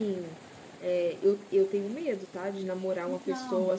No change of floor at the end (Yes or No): Yes